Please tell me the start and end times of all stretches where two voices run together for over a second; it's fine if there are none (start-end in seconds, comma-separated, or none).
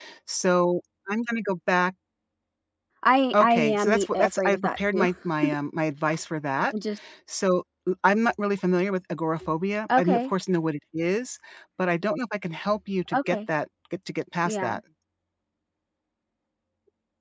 3.3-5.1